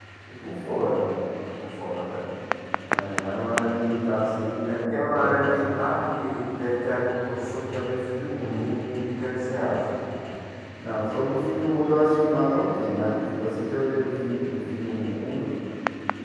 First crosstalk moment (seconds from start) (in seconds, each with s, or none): 4.6 s